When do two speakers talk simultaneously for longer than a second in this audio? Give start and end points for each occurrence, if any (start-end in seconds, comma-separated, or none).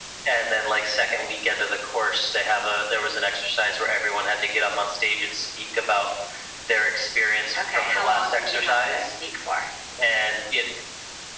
7.8-9.1